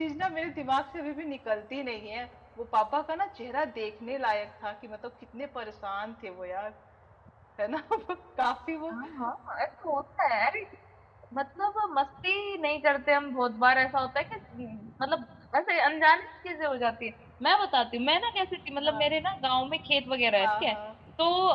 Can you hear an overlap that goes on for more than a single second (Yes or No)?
No